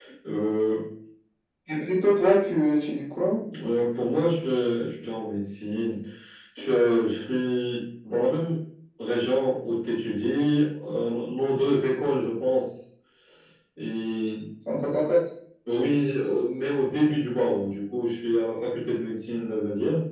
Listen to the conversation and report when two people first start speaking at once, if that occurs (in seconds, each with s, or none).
none